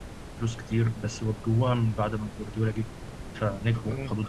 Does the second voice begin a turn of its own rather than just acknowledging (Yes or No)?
No